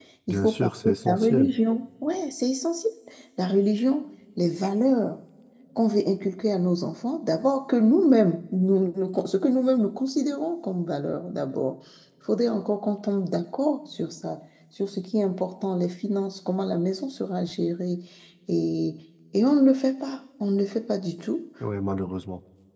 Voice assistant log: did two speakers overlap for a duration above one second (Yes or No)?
Yes